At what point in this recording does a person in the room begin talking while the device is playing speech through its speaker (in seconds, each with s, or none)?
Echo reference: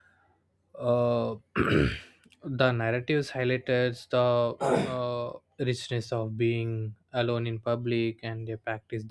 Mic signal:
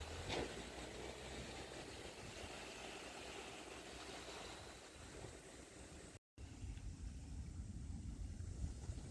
none